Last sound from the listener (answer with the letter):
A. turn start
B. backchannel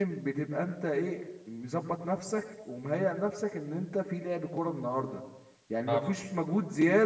B